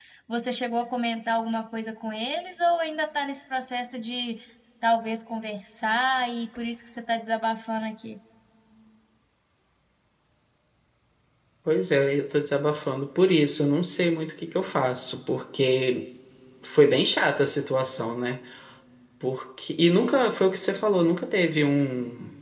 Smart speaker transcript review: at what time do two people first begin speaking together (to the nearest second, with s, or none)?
none